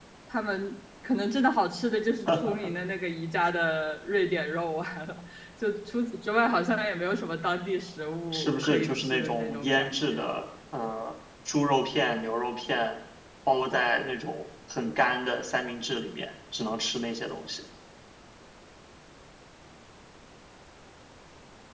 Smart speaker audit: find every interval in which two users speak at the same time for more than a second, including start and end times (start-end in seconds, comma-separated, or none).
8.3-10.2